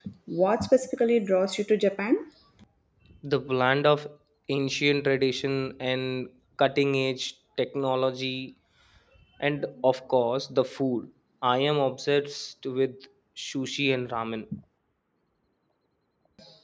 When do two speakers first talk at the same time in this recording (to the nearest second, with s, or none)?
none